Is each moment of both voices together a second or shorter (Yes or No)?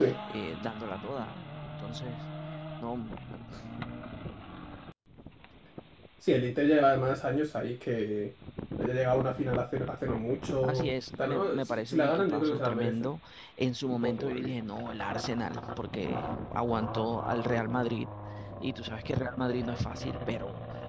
No